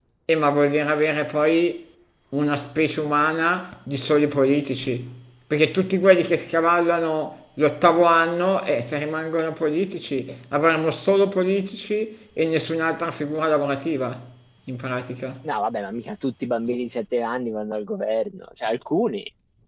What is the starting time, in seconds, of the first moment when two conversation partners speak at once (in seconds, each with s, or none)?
none